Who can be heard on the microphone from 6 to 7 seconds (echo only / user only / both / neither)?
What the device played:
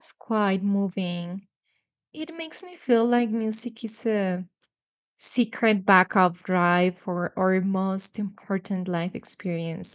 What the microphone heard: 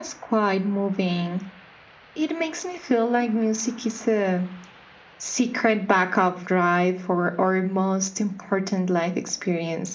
echo only